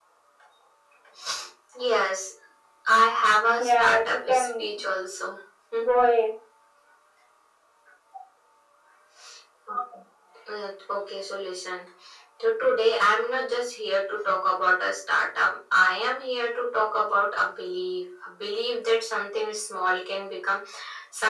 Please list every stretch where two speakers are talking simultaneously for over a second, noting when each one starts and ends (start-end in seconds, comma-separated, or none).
3.6-4.8